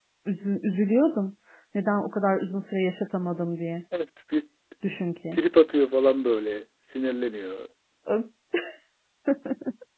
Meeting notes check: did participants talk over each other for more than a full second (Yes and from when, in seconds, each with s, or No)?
No